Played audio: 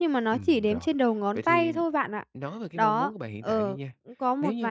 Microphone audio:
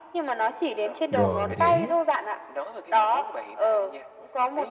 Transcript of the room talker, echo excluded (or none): rồi, mình hiểu,